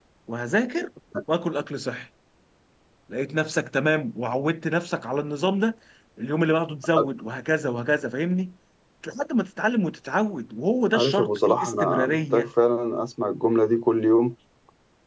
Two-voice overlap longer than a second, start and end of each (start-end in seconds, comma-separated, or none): 10.9-12.5